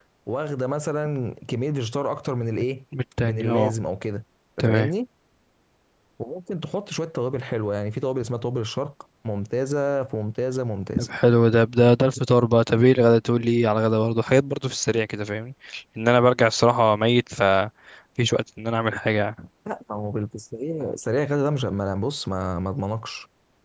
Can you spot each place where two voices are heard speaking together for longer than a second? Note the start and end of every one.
none

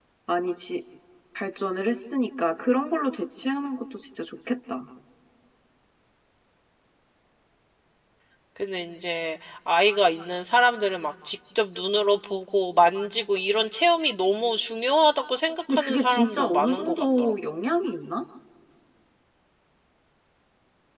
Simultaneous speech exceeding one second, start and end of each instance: 15.7-17.3

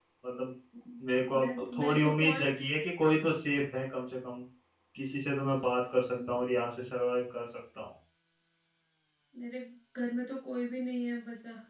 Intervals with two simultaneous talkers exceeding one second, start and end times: 1.3-2.5

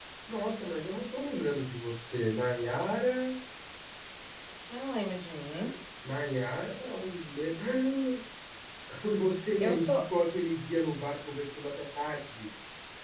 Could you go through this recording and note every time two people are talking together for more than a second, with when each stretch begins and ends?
none

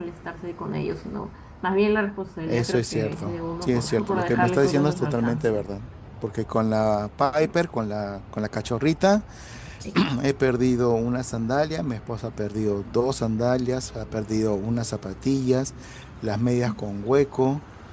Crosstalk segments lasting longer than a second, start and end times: 2.5-5.6

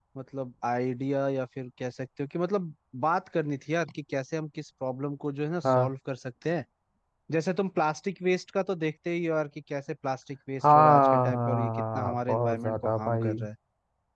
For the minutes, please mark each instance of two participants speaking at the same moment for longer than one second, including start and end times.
10.6-13.3

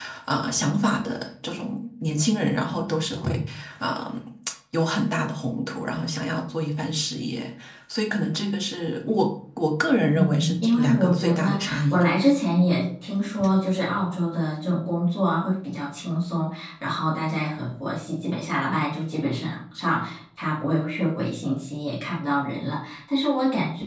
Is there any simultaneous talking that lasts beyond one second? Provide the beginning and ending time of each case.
10.2-12.1

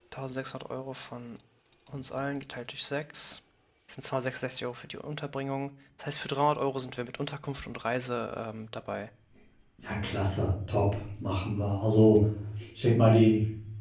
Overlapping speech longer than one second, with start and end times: none

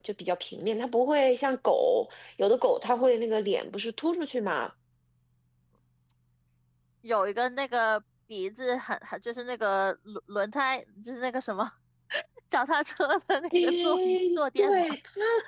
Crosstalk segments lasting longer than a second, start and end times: 13.6-14.9

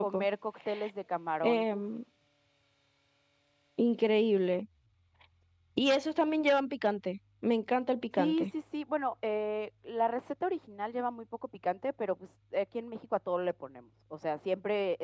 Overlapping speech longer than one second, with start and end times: none

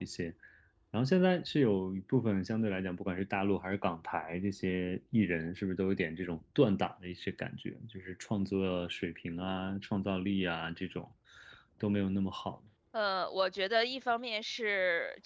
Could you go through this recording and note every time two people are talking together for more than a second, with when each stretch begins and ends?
none

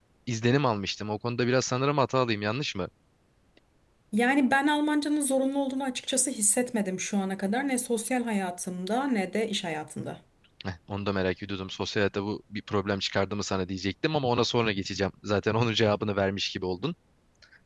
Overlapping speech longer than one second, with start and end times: none

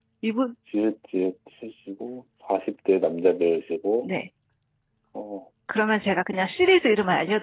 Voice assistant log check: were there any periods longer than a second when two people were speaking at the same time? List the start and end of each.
none

